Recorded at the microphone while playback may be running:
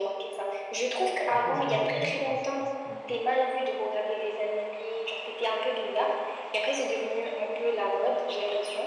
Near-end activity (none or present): present